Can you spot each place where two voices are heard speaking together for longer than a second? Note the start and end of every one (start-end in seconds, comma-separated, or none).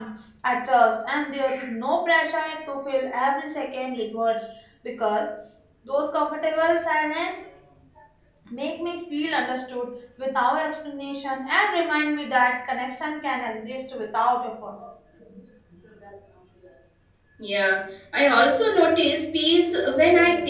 none